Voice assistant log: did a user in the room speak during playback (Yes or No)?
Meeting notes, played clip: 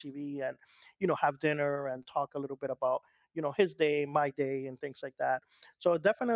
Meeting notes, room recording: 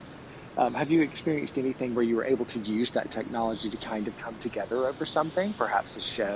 Yes